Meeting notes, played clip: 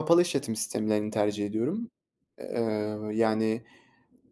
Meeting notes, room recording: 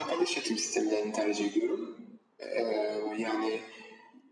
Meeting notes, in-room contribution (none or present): none